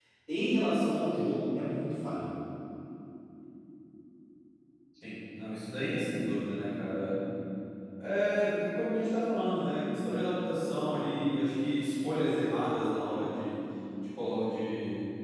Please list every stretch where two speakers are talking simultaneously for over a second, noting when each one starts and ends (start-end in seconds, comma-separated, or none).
none